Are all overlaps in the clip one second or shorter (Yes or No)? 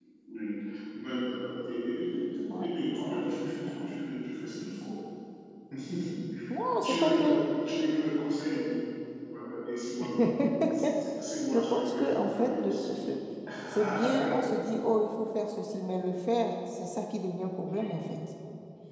No